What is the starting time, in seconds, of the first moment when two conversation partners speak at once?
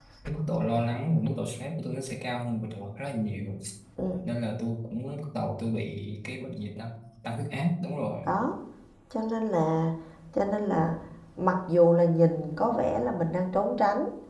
none

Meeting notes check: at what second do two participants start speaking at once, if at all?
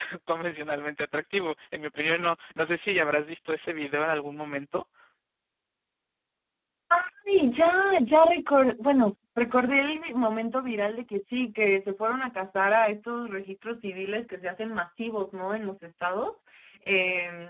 none

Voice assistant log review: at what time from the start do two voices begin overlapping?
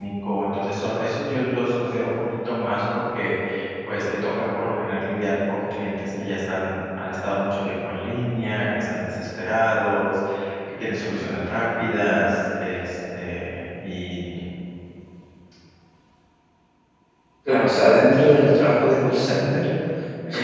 none

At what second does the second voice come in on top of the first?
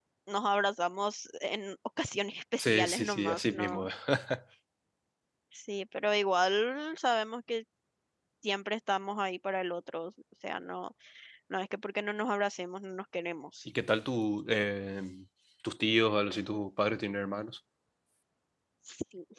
2.6 s

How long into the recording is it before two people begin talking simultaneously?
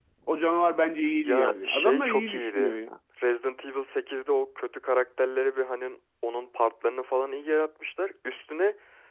1.2 s

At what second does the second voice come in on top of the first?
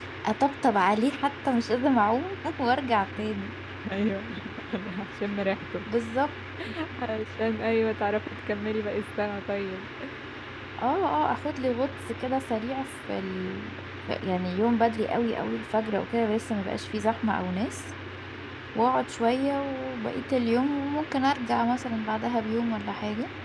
none

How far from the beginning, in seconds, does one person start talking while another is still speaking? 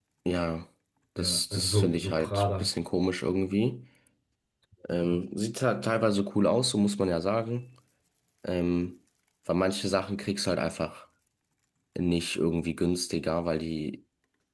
1.2 s

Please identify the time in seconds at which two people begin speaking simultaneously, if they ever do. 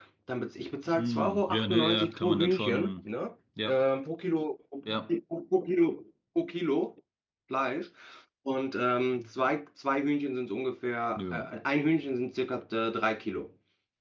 0.9 s

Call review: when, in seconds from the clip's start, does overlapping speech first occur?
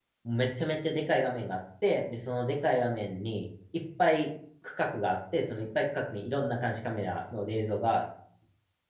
none

